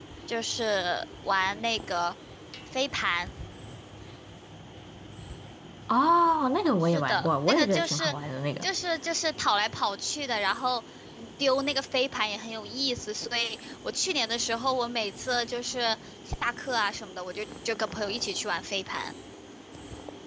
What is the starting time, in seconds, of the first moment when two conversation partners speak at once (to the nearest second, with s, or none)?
7 s